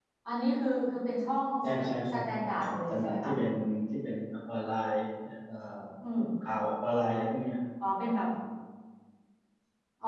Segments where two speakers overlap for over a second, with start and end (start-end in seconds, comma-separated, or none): 2.1-3.3